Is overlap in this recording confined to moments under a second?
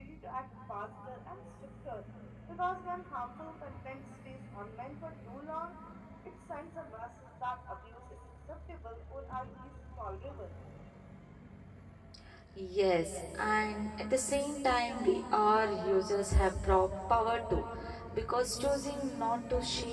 Yes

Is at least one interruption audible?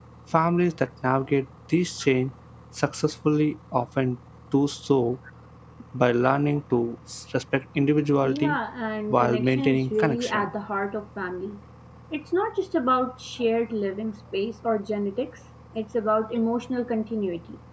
Yes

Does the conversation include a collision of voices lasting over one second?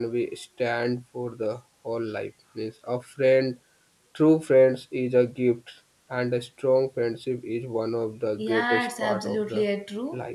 Yes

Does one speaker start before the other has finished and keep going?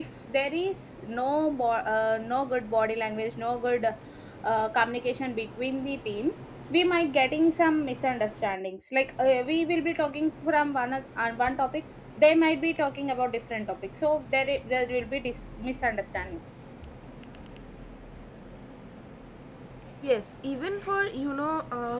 No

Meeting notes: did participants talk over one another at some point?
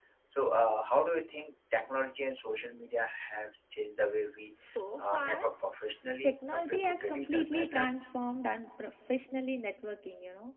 Yes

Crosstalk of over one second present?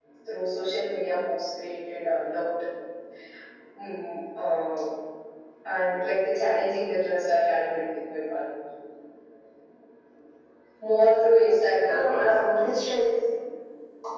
No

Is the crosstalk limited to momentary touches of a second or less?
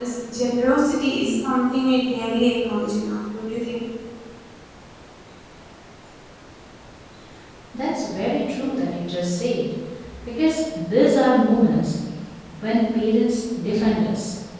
Yes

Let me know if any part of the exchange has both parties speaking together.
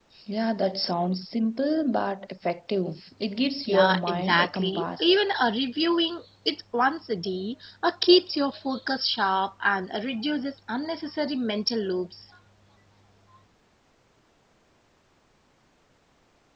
Yes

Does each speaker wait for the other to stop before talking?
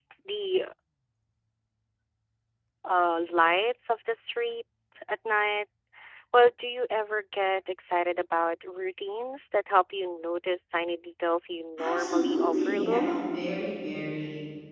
No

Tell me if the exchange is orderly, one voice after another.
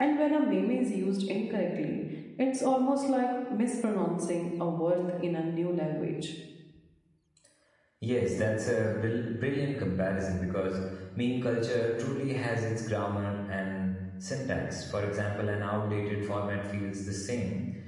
Yes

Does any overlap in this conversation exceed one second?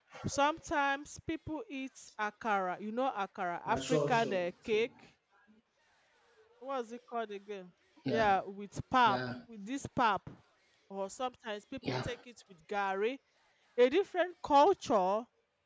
Yes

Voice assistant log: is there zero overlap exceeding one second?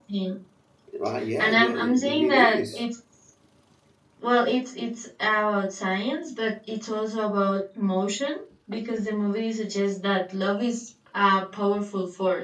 No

